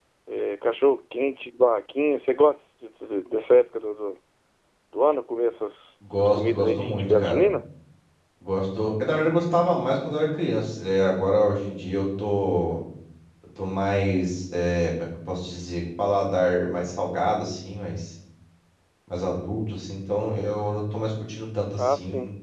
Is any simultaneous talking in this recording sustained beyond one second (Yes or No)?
Yes